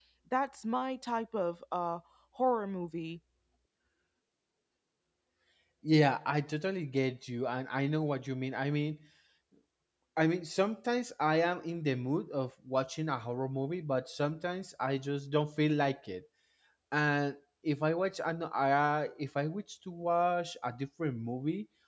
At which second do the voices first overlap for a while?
none

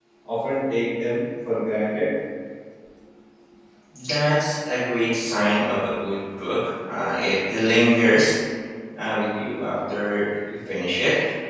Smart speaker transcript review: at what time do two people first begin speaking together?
none

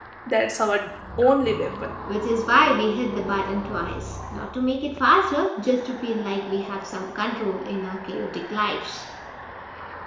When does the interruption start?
none

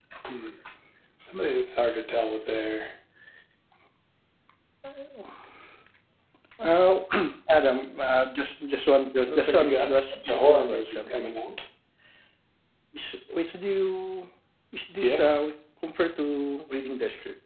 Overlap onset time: 9.3 s

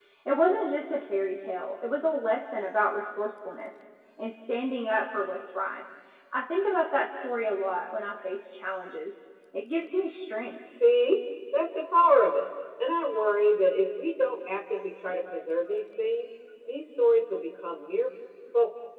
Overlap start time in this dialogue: none

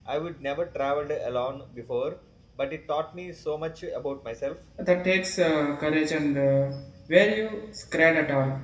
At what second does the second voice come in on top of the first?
none

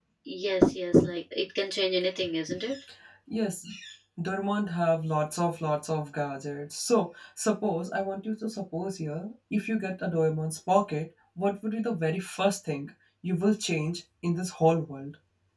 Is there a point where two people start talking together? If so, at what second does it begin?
none

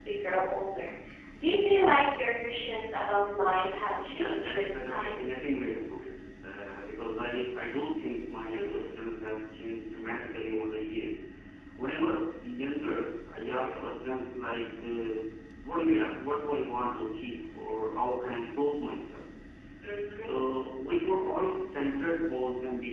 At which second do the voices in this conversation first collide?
4.0 s

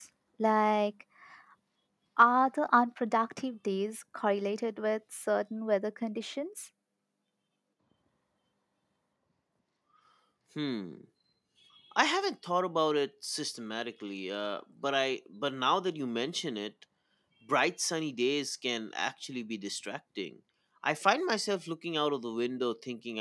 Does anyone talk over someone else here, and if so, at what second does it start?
none

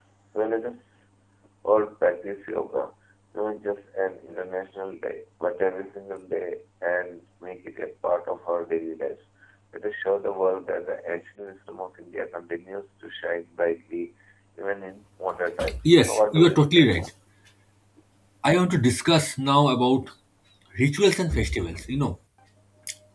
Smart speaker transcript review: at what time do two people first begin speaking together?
15.9 s

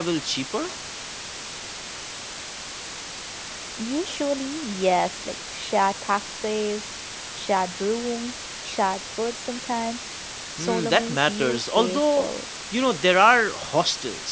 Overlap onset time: 10.6 s

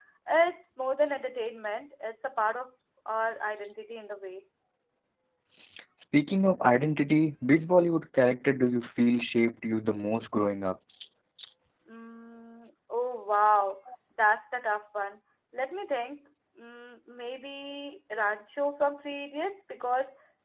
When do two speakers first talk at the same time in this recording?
none

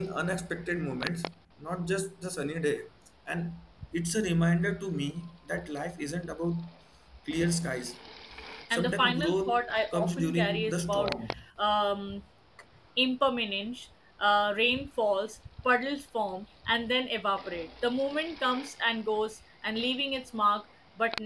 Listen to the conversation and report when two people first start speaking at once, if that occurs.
8.7 s

